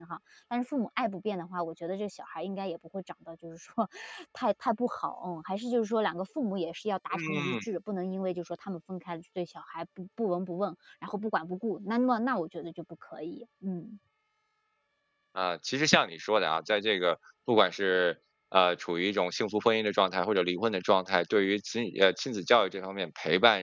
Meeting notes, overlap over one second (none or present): none